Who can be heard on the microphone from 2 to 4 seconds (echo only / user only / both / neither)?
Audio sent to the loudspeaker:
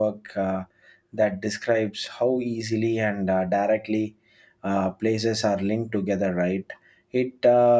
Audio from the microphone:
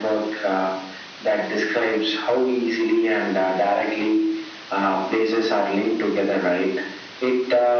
echo only